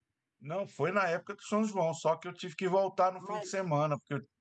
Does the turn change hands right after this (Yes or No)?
No